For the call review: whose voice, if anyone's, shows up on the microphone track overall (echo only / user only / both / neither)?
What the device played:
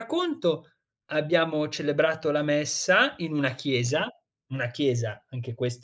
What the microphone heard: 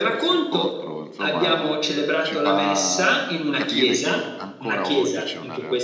both